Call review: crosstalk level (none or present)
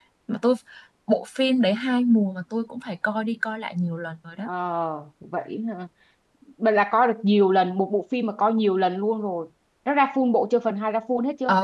none